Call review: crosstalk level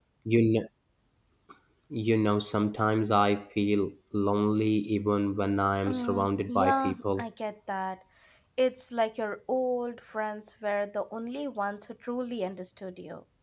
present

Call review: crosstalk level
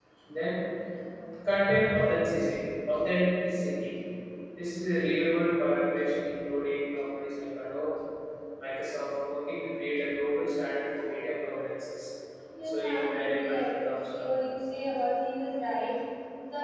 present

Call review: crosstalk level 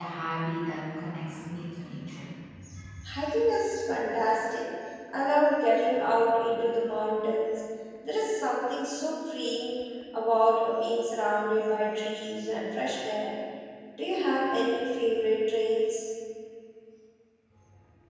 none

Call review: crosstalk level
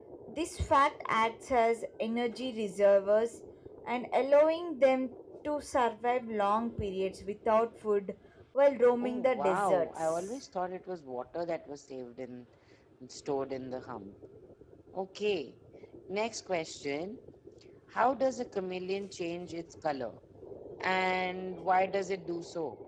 present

